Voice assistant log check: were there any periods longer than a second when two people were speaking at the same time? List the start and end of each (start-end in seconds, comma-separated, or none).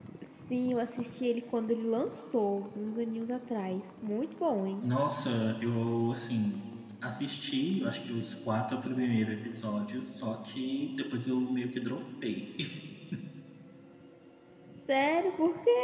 none